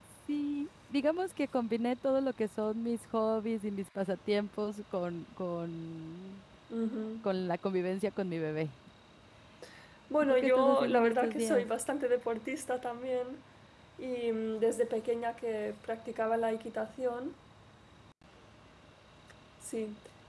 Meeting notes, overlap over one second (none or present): present